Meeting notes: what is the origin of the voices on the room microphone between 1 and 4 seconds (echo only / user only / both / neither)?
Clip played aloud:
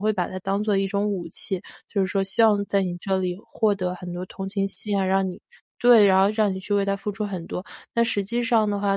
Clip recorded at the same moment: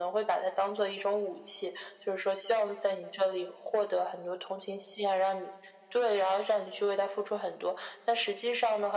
echo only